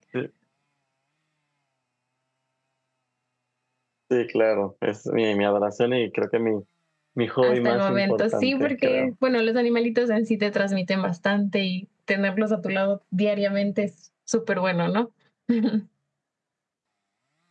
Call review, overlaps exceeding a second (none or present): present